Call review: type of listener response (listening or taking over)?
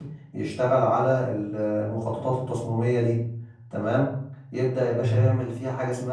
listening